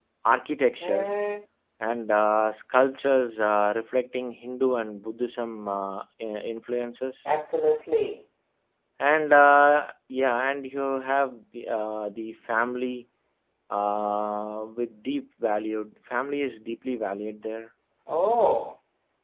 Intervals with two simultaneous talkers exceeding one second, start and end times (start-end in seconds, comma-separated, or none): none